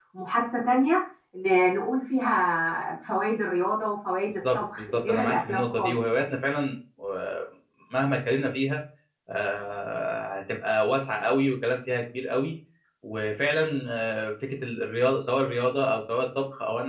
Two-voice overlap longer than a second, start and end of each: 4.5-6.2

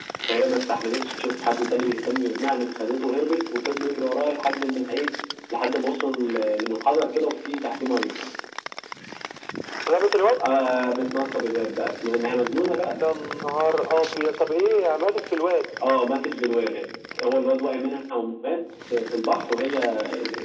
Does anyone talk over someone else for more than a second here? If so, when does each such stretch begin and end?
none

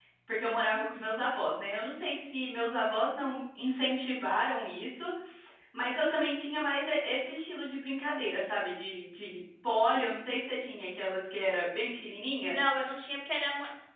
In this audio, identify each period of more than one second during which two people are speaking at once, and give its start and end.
none

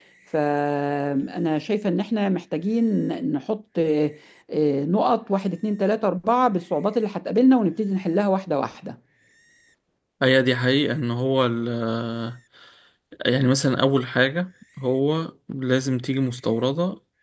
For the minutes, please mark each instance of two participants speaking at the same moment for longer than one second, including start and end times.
none

